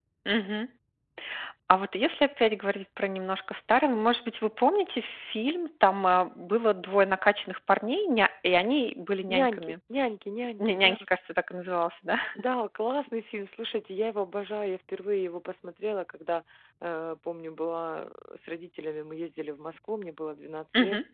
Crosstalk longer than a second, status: none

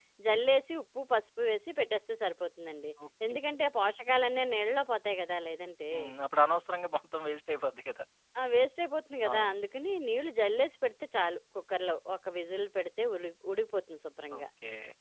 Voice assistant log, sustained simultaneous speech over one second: none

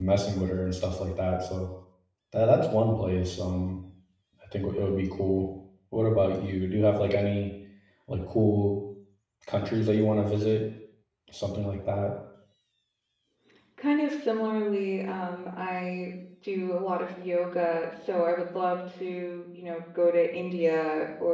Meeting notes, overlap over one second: none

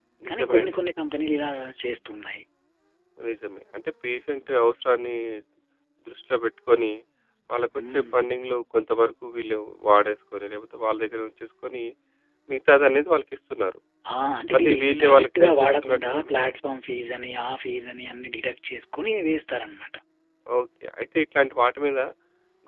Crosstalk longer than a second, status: present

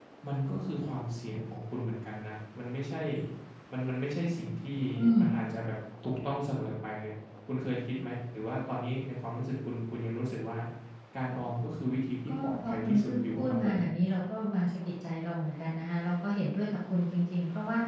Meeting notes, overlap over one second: present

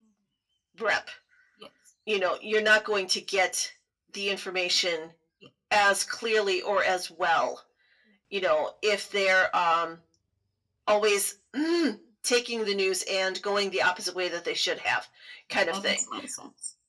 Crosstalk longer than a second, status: none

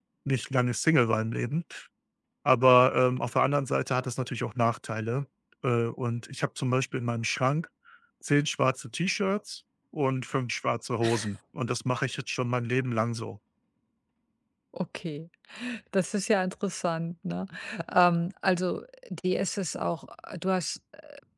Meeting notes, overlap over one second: none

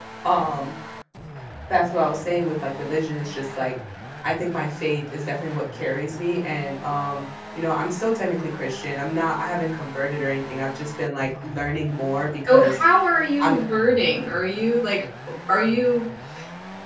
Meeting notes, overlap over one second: none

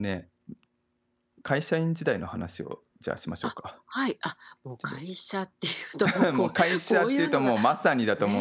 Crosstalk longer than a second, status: present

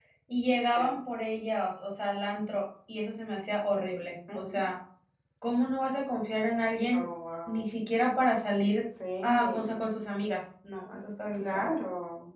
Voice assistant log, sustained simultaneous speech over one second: none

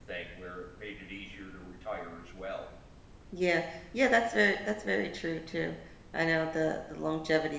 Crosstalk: none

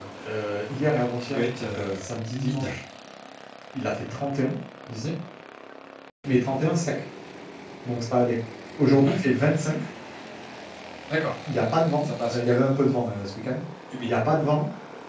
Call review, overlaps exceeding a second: present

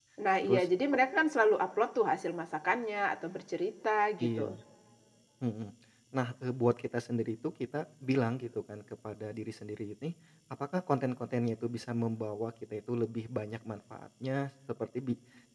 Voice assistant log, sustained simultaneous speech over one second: none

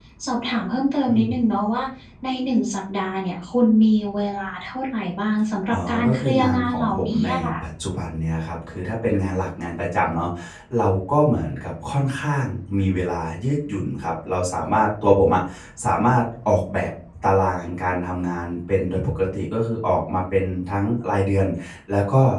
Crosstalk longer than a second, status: present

